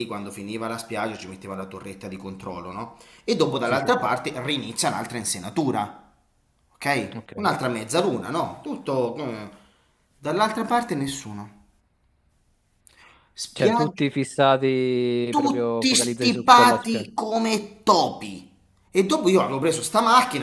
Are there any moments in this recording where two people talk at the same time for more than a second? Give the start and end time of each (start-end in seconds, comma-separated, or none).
15.3-17.1